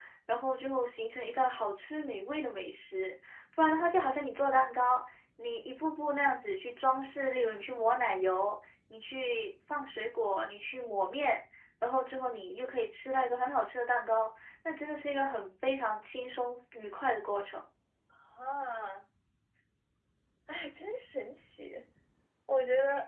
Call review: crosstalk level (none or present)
none